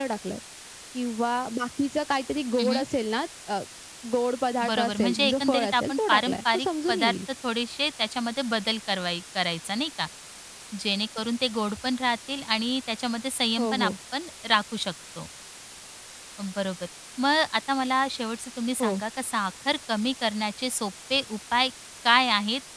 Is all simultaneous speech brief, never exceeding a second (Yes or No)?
No